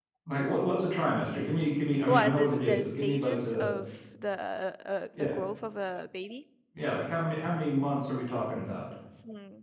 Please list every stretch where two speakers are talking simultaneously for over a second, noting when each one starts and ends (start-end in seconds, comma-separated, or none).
2.1-3.7